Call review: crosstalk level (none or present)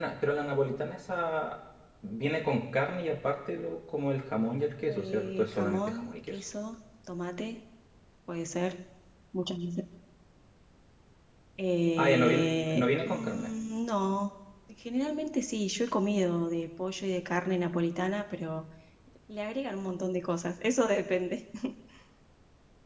present